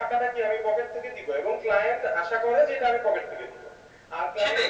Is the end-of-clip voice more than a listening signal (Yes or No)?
Yes